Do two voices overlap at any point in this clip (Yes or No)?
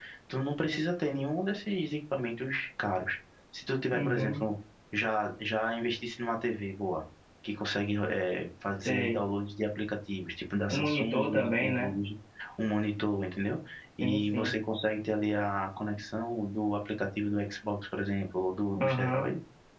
Yes